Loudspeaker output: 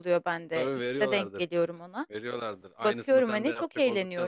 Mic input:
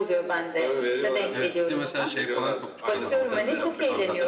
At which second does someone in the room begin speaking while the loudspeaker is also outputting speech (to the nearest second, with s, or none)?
1 s